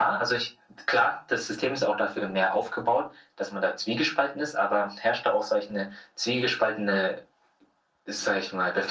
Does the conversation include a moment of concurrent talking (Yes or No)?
No